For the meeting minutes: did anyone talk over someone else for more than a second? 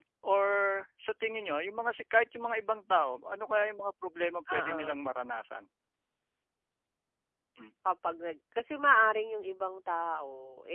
No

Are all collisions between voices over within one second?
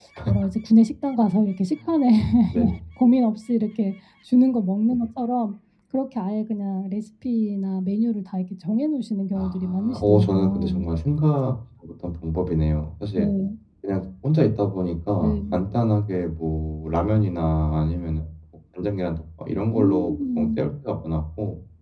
No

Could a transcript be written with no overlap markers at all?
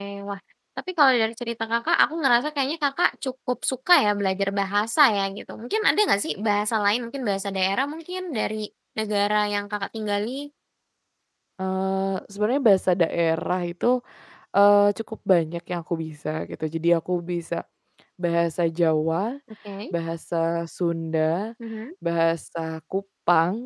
Yes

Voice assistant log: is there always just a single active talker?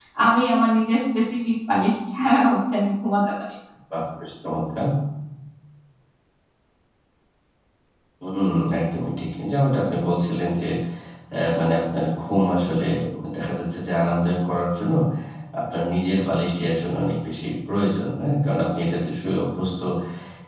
Yes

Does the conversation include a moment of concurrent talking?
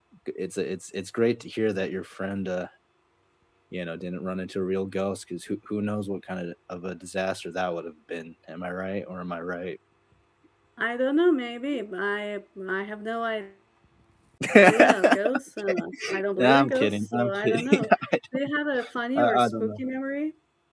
Yes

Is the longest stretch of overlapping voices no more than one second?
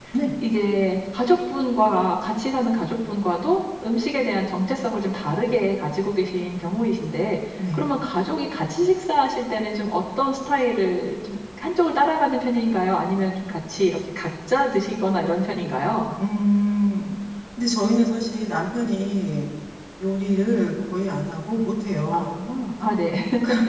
Yes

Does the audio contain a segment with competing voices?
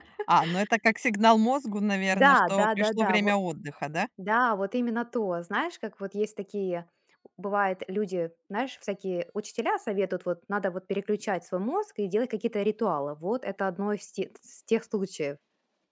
Yes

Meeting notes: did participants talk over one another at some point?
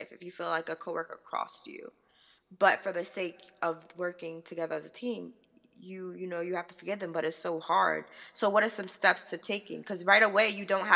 No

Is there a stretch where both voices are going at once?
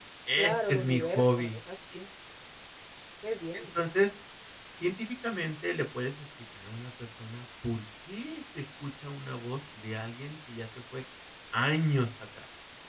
Yes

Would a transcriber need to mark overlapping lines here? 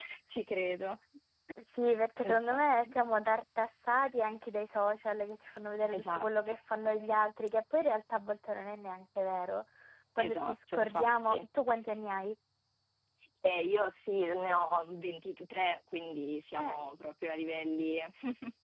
Yes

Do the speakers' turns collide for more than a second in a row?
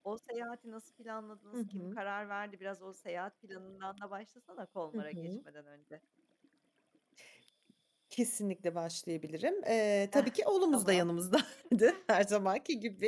No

